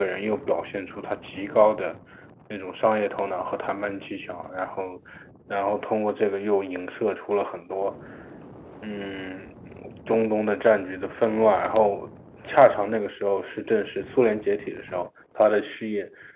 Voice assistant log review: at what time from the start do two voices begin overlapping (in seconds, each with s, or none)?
none